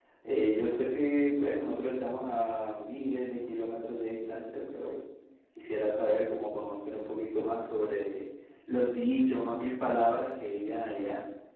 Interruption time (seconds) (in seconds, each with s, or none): none